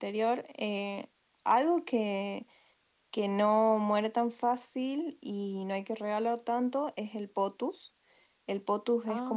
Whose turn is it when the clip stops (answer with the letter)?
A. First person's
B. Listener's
A